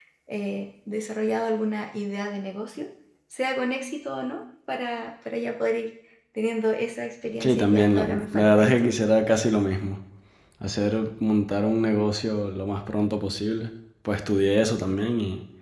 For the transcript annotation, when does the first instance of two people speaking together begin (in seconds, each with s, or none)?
7.4 s